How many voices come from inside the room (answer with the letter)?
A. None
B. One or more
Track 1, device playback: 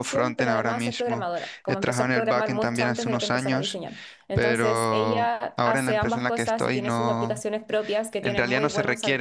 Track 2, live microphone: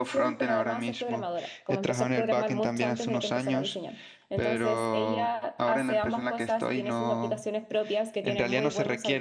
A